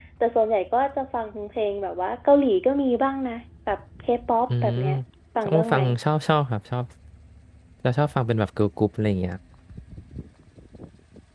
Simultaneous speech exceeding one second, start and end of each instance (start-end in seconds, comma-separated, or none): none